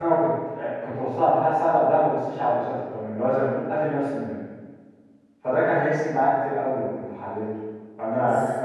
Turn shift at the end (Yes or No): No